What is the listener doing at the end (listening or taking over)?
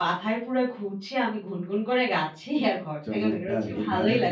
taking over